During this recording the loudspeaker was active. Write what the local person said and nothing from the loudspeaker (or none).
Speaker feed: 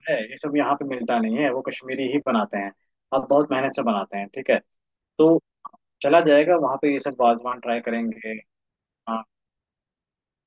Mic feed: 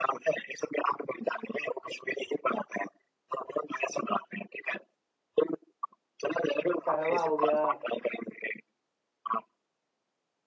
कहवा हो गया